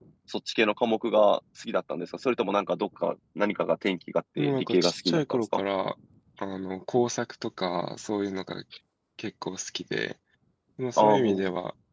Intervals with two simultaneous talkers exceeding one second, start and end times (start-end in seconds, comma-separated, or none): 4.4-5.6